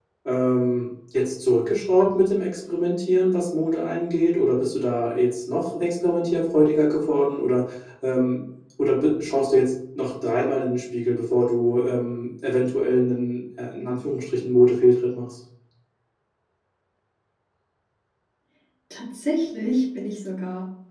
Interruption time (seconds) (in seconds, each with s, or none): none